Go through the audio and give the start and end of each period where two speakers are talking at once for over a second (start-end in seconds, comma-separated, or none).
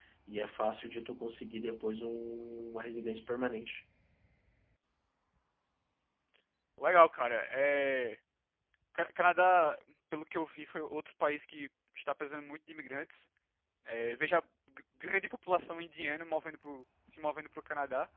none